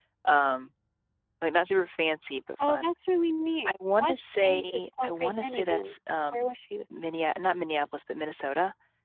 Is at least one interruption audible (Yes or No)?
Yes